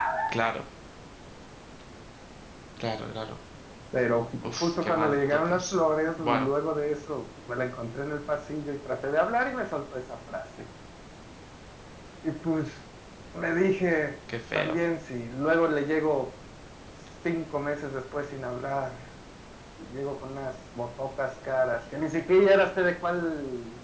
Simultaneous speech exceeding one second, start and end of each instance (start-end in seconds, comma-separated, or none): 4.4-5.7